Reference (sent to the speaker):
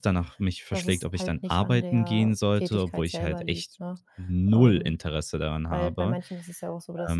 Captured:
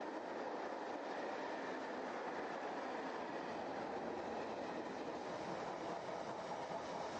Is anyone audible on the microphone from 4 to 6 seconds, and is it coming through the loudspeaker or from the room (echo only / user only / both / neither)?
neither